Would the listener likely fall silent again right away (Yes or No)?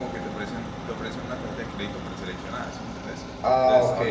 Yes